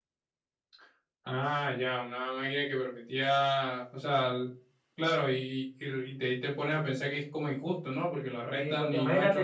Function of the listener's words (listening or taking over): taking over